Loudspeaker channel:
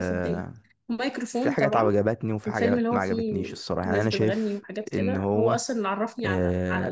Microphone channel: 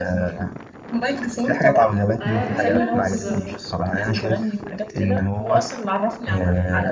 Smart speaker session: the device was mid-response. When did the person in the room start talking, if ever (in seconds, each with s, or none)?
2.2 s